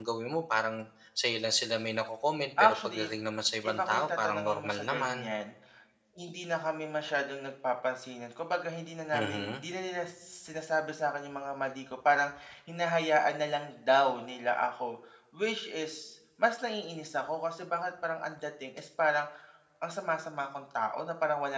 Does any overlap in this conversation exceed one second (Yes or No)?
Yes